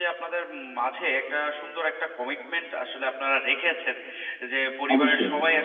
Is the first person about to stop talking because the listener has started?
No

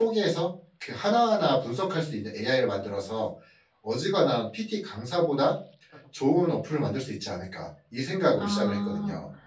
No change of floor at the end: No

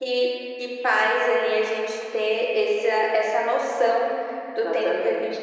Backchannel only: Yes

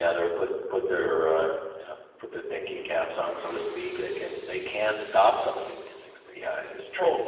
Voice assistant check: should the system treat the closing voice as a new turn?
Yes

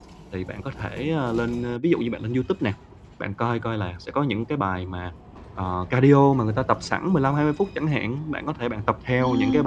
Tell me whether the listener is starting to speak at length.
No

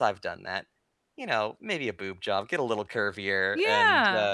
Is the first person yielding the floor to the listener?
Yes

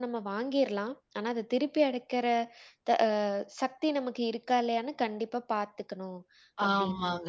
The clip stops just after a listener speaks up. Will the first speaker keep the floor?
No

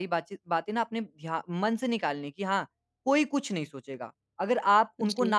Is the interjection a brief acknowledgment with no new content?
Yes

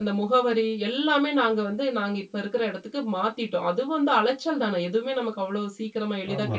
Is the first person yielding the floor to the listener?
Yes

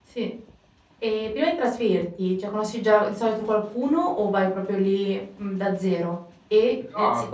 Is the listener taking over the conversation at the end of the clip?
No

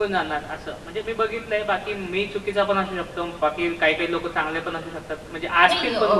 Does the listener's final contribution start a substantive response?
Yes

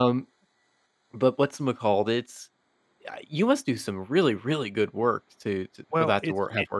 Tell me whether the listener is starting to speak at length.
Yes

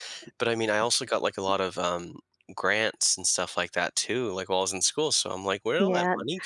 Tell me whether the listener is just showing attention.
No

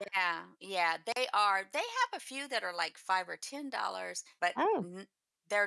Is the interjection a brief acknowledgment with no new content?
Yes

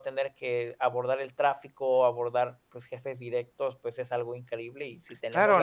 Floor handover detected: Yes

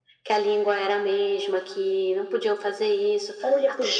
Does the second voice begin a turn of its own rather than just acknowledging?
Yes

